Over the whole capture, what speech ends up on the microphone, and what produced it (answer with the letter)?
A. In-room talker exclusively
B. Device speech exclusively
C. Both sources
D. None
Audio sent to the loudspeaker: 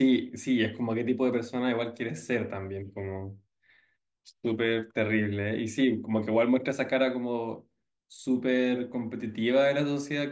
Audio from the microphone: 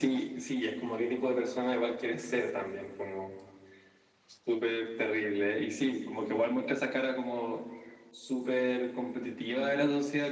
B